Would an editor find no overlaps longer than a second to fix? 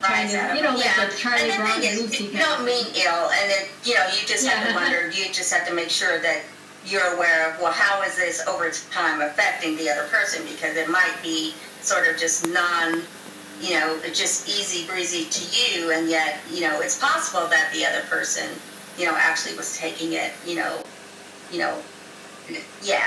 No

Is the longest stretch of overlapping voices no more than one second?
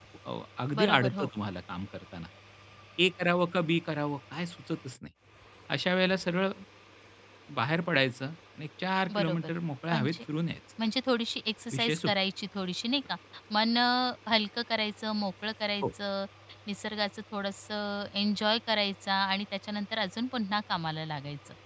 Yes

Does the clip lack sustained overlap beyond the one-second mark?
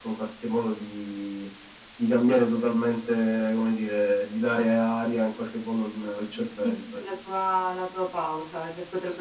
Yes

